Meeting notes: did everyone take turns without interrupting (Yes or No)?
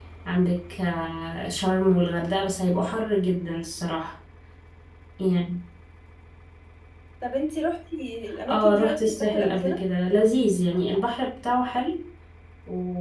No